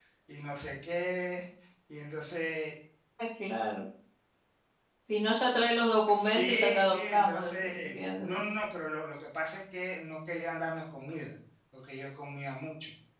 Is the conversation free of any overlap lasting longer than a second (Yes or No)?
No